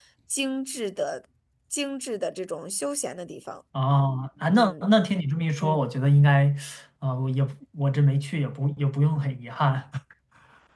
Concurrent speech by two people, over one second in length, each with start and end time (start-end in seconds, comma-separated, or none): none